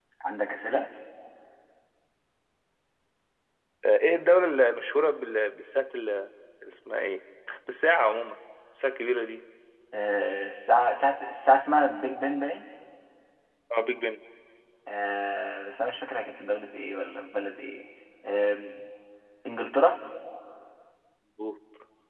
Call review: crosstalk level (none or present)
none